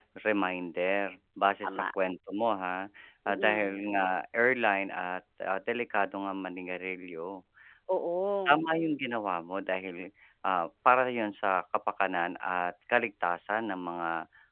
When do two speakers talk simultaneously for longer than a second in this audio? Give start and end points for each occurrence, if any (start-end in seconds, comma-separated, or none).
none